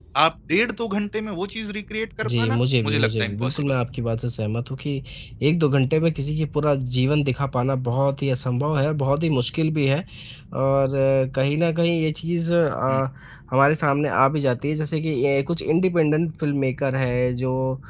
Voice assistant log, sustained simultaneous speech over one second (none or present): present